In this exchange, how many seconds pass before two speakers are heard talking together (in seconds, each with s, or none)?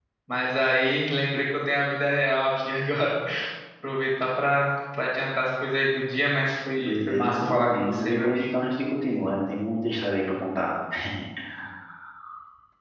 6.8 s